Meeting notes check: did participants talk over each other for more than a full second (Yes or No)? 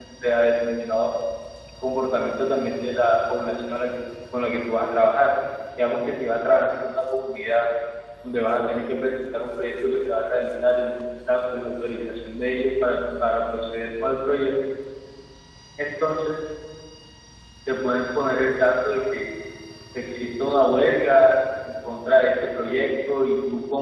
No